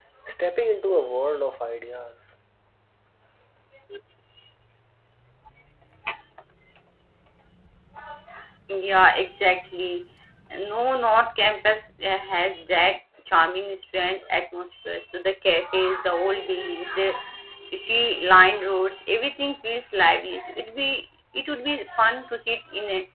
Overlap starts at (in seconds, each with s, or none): none